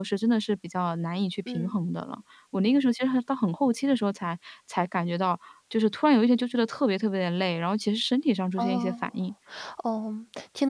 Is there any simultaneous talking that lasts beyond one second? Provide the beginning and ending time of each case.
none

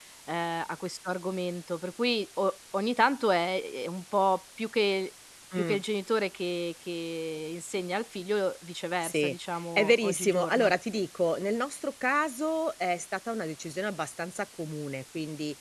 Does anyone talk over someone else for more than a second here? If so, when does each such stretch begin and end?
9.0-10.7

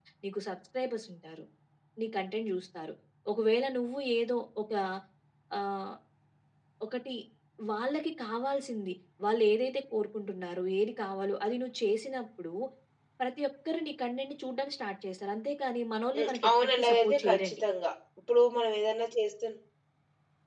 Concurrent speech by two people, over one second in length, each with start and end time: 16.2-17.6

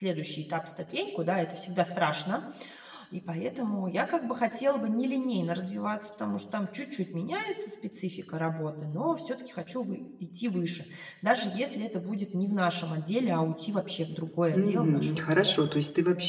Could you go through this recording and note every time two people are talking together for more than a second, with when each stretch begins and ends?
14.5-15.7

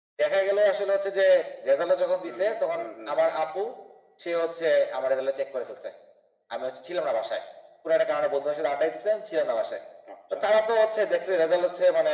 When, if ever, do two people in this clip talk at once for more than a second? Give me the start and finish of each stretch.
2.2-3.4

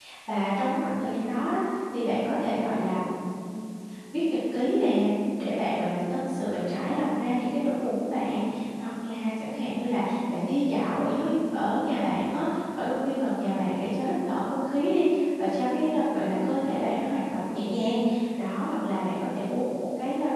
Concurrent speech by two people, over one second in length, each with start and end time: none

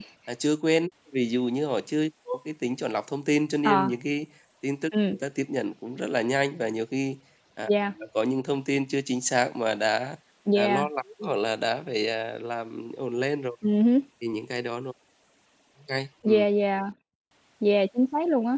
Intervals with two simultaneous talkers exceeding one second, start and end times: none

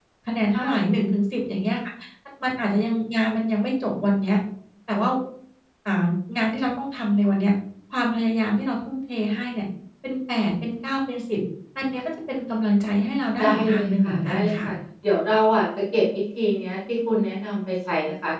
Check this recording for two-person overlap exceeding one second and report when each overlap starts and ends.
13.4-14.7

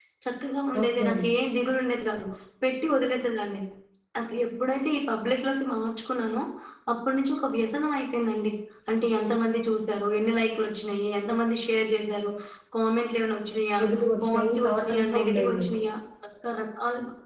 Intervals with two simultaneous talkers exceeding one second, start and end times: 14.2-15.7

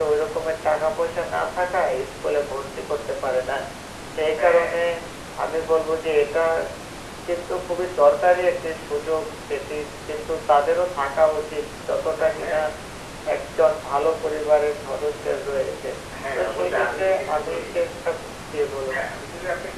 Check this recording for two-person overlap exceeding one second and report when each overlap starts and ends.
16.4-17.6

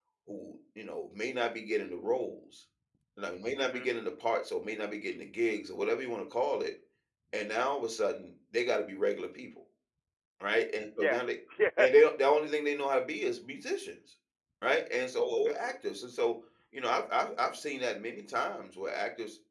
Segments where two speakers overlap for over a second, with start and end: none

